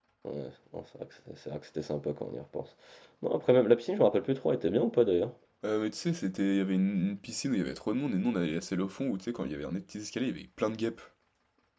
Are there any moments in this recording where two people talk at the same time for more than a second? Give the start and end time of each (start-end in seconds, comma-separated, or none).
none